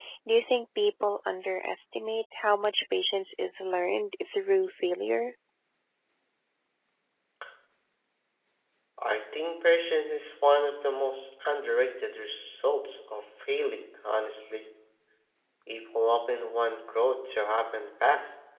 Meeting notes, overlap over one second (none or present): none